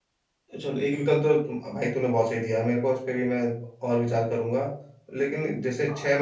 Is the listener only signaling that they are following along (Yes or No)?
Yes